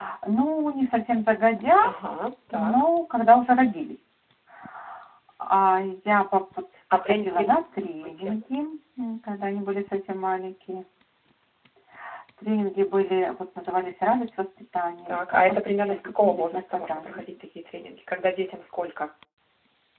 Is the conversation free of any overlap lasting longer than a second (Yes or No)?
No